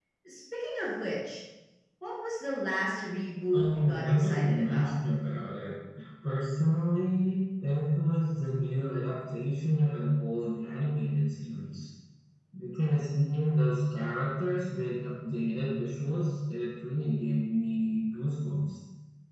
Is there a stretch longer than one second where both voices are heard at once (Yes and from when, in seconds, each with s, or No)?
Yes, from 3.5 s